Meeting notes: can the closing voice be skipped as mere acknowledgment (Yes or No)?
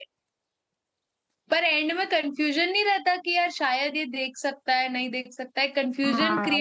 No